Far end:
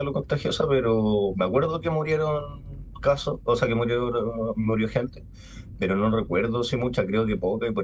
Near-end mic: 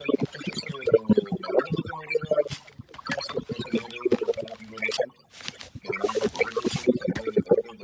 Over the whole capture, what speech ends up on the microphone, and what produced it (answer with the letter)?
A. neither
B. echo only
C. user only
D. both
B